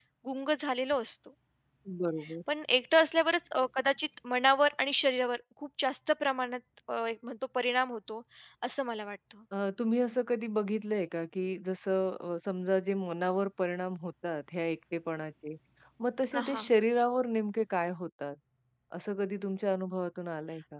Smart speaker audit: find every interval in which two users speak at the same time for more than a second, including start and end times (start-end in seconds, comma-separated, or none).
none